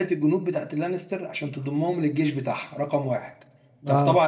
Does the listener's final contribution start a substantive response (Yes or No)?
No